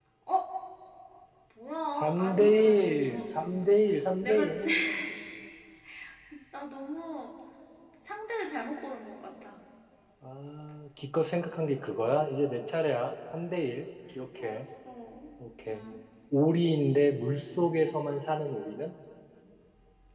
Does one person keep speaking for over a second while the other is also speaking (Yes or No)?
Yes